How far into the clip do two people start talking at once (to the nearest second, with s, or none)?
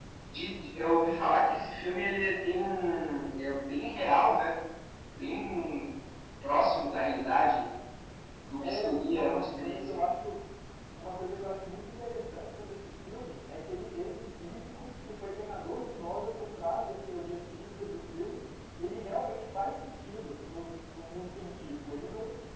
9 s